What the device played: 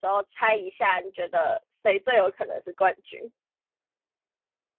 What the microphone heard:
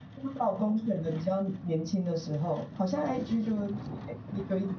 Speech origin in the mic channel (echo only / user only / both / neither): user only